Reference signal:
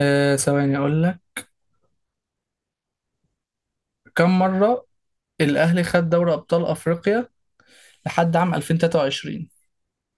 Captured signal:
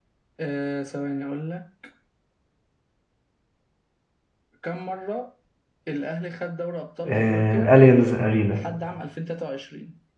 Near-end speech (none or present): present